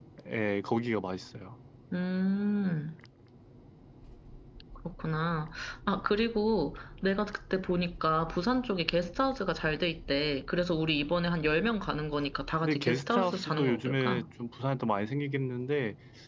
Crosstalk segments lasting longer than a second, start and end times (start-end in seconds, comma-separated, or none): 12.6-14.2